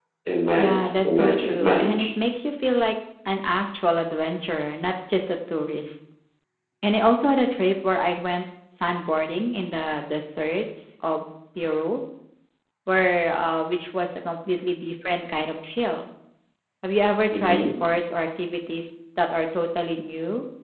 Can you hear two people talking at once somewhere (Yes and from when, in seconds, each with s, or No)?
Yes, from 0.6 s